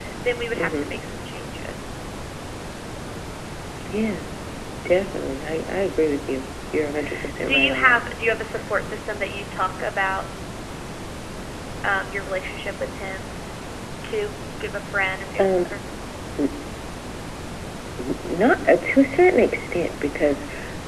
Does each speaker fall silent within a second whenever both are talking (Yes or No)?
Yes